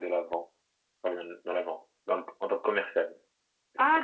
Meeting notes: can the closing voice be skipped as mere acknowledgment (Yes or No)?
No